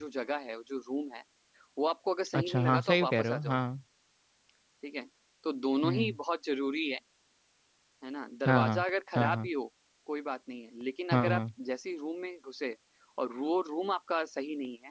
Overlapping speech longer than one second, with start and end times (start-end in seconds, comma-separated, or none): 2.3-3.6